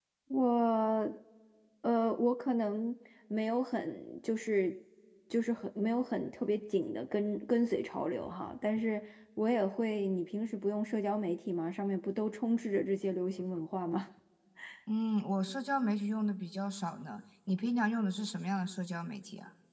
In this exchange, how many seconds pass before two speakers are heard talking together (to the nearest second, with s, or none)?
none